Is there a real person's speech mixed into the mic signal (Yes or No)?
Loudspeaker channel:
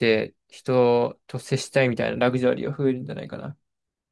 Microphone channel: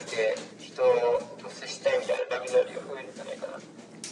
No